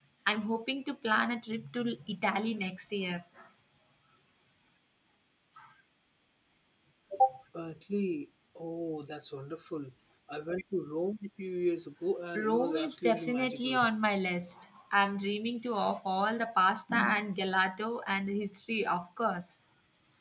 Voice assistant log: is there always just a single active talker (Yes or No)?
No